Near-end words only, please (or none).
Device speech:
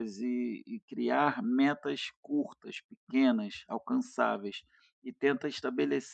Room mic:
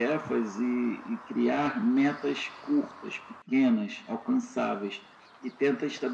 none